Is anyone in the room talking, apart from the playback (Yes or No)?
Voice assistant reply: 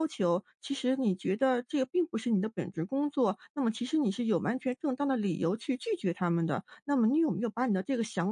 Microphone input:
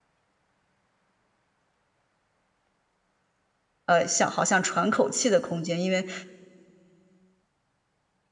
Yes